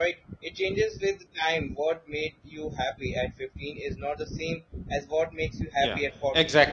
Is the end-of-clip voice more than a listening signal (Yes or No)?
Yes